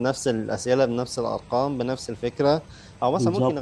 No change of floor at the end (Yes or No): Yes